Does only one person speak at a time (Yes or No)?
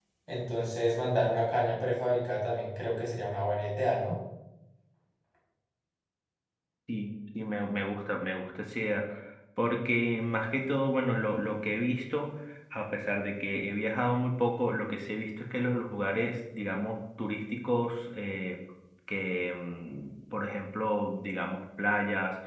Yes